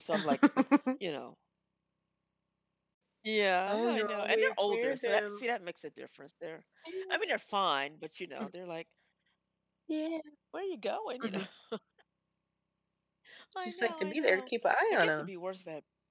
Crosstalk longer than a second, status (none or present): present